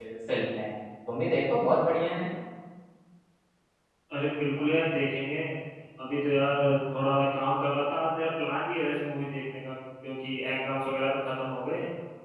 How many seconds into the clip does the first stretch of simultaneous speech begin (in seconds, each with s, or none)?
none